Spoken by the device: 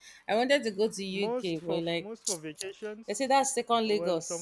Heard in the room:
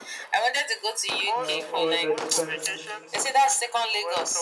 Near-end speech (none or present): present